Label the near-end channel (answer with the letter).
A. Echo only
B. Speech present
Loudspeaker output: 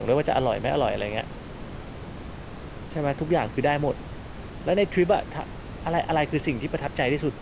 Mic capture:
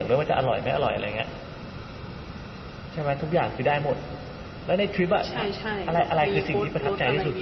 B